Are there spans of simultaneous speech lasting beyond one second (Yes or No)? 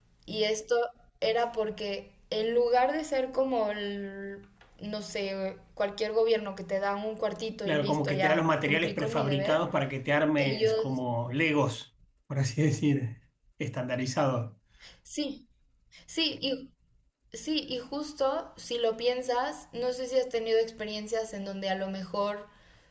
Yes